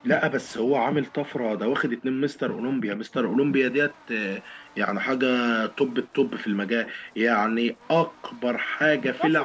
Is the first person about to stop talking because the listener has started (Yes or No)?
Yes